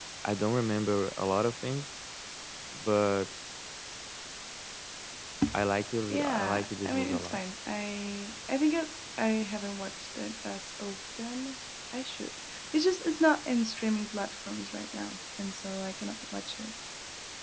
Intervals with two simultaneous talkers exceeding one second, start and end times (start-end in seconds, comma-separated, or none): 6.1-7.4